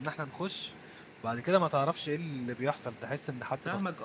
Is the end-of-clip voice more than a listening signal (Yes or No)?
Yes